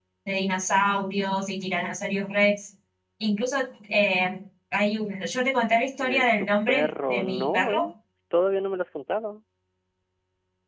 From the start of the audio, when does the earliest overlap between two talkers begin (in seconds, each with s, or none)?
6.0 s